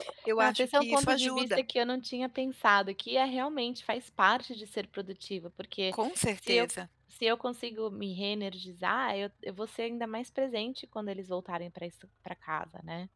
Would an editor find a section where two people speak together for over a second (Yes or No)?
Yes